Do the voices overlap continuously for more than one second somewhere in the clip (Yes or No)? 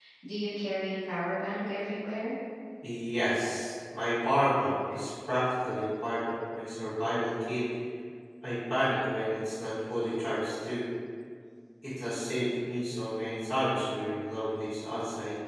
No